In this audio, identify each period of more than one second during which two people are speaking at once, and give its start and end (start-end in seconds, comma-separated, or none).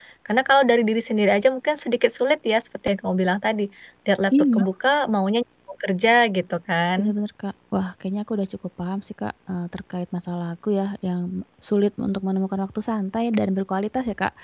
none